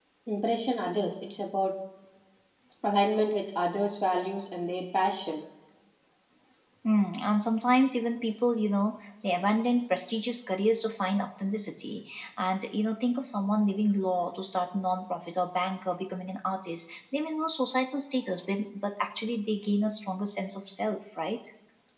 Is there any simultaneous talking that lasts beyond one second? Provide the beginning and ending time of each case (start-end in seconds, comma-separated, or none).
none